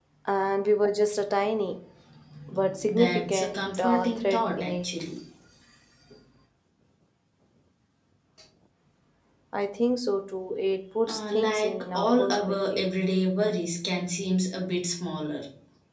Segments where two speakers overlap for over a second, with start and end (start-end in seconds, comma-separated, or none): 2.9-4.8, 11.1-12.8